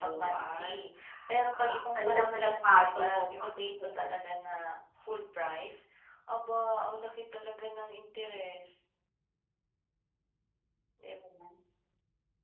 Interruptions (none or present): present